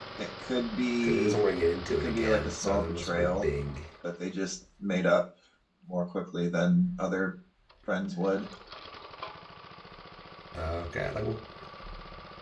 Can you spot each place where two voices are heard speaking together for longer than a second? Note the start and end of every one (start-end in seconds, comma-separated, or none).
1.9-3.5